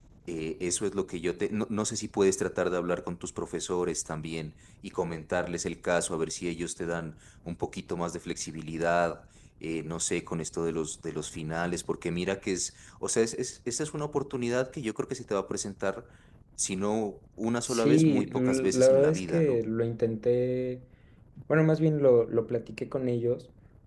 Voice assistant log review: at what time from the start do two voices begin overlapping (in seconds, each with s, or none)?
17.6 s